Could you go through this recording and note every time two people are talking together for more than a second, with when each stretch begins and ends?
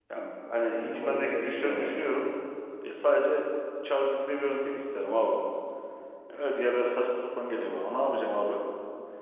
0.7-2.0

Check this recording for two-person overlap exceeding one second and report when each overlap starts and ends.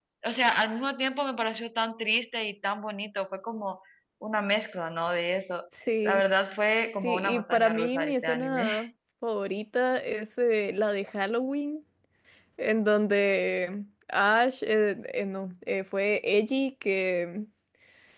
7.0-8.7

